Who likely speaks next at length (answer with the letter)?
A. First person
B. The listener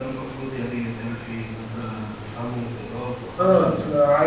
B